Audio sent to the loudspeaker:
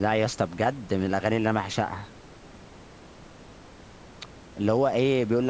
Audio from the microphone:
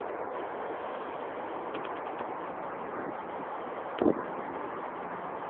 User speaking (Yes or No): No